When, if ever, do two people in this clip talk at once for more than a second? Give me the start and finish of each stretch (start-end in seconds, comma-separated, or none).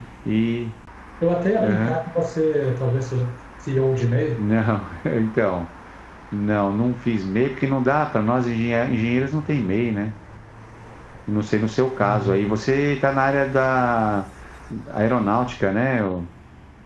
none